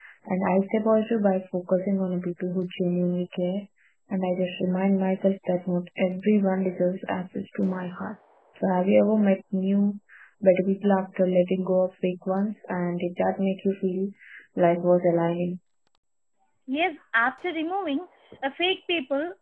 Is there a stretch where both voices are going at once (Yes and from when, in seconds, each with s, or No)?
No